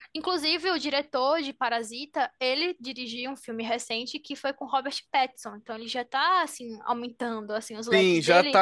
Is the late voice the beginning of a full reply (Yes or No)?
Yes